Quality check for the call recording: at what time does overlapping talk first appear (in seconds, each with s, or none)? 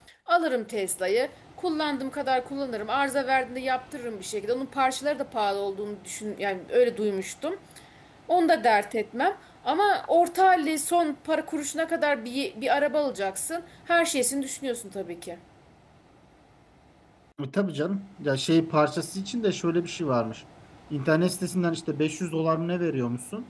none